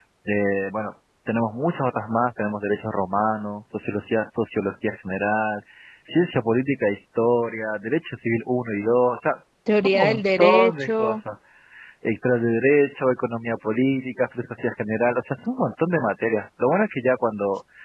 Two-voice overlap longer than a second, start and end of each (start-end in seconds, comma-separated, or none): 9.8-11.2